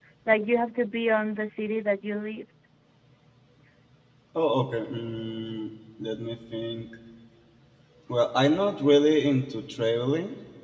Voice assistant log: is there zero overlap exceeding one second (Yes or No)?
Yes